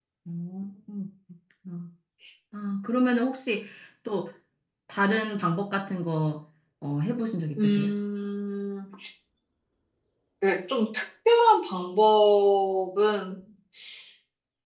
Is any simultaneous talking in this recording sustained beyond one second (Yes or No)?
No